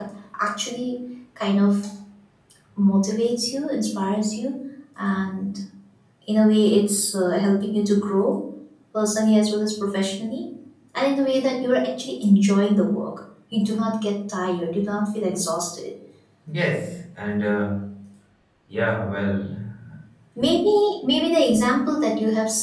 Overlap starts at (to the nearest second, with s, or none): none